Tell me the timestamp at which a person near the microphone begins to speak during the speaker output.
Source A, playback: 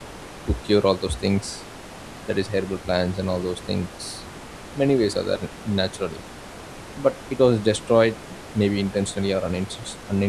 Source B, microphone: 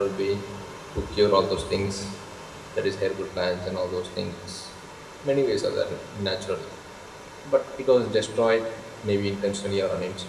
none

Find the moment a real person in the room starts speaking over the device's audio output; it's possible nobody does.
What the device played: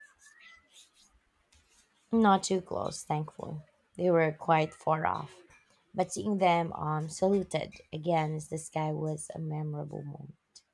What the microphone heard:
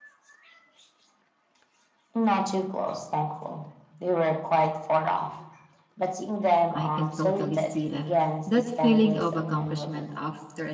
6.7 s

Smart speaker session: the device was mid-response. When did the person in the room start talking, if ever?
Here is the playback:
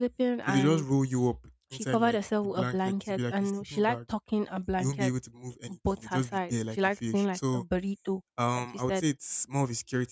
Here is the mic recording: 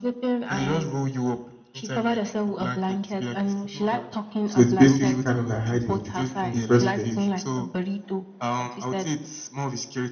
4.4 s

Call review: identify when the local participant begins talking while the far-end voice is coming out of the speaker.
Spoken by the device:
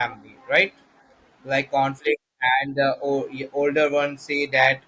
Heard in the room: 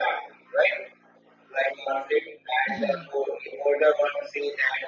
2.7 s

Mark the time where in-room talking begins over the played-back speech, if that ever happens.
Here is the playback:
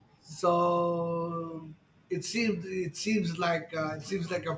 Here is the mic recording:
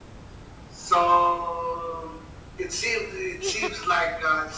3.4 s

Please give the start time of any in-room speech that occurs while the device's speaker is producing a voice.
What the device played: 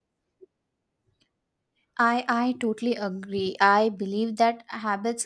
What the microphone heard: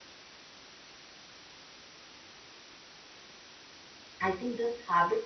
4.3 s

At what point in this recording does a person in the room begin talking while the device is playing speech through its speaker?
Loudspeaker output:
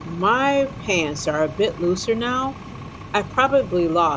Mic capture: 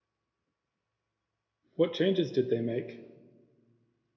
1.8 s

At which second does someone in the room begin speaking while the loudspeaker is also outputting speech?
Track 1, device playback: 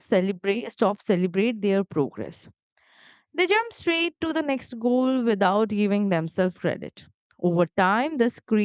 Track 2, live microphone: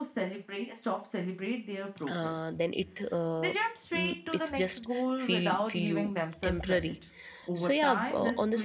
2.1 s

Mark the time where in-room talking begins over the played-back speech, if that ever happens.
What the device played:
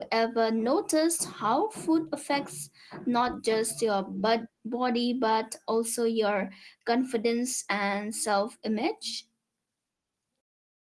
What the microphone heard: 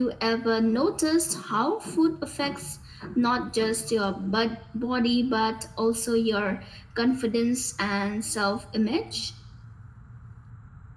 none

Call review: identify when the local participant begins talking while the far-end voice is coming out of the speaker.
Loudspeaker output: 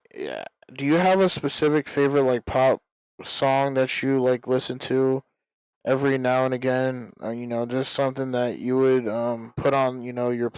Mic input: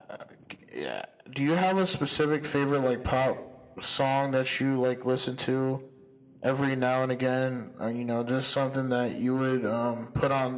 none

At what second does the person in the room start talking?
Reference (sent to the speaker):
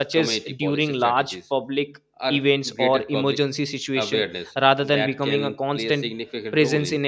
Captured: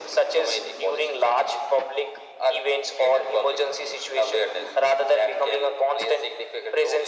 none

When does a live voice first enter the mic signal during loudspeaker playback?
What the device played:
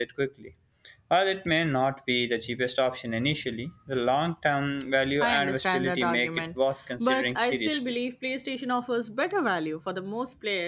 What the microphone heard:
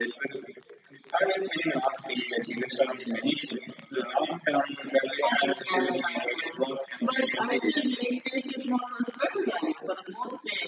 none

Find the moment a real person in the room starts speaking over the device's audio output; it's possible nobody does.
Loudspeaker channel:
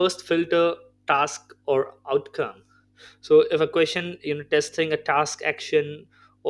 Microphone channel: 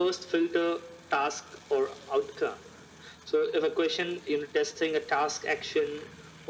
none

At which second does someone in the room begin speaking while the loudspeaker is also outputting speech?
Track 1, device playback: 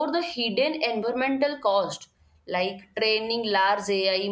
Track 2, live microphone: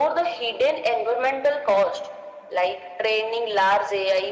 none

